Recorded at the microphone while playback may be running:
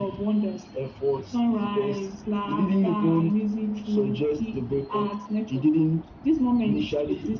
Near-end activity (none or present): none